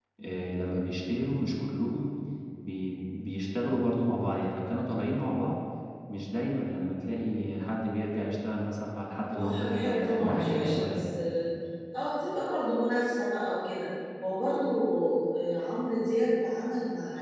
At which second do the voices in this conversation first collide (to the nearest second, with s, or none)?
9 s